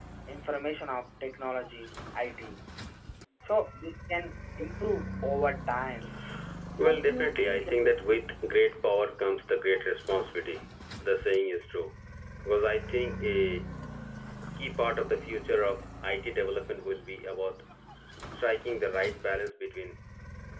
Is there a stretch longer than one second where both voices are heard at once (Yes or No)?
Yes